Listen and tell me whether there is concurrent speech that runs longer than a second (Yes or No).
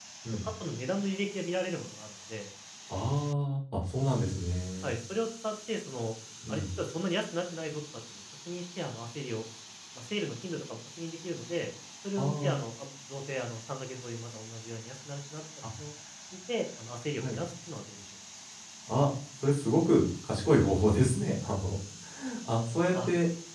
No